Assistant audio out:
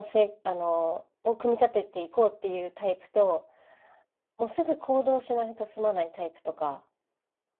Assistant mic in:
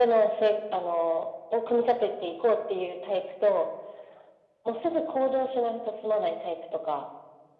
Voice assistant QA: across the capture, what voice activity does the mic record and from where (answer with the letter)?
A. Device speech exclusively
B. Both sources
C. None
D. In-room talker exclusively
A